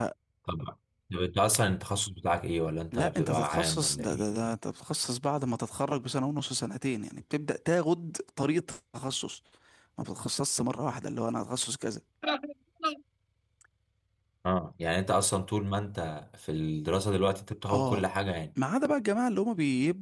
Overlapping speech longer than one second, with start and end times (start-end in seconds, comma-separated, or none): 2.9-4.2